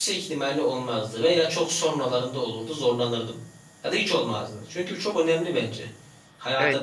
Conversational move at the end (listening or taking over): taking over